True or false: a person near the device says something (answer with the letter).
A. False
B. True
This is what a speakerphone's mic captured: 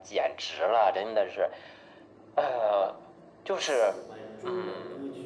B